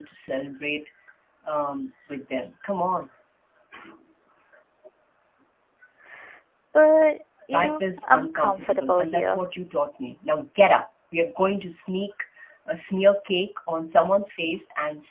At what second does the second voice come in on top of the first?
8 s

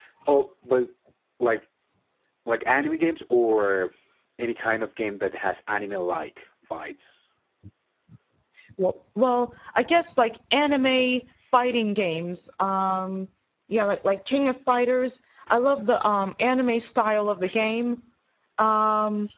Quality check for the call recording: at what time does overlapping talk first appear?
none

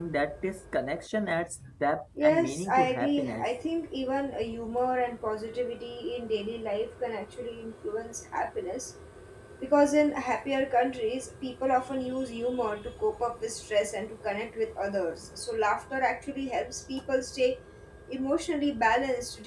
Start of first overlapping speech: 2 s

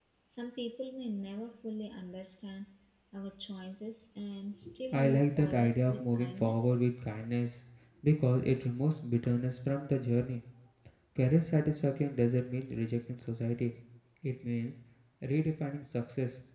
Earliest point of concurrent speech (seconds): 5 s

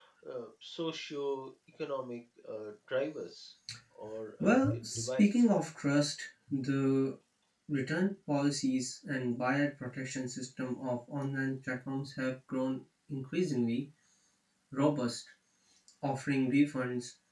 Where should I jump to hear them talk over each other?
4 s

